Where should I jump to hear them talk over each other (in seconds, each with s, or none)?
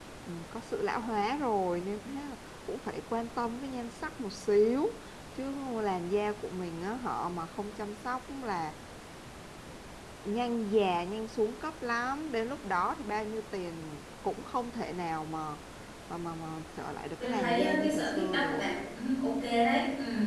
17.2 s